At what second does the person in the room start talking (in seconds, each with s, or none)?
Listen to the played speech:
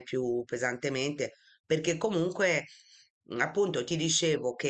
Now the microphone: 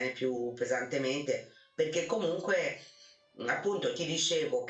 none